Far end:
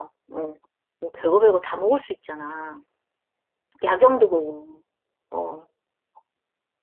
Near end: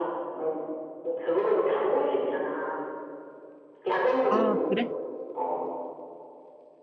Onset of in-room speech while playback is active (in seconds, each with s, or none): 4.3 s